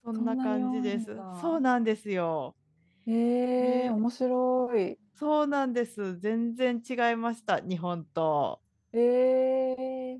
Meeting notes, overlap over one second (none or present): present